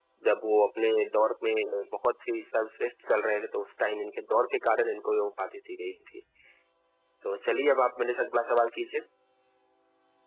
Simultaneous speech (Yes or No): No